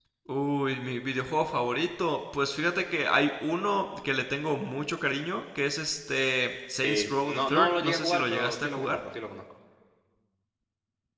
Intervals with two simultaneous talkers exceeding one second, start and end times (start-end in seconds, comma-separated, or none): 6.8-9.0